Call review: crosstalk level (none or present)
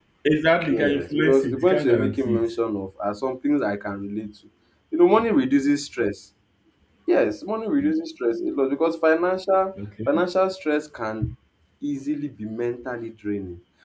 present